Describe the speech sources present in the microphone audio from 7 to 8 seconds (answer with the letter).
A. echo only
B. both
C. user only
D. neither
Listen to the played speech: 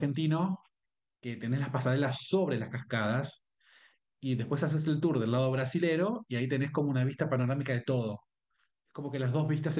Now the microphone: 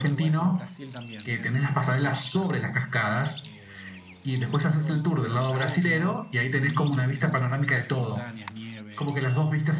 B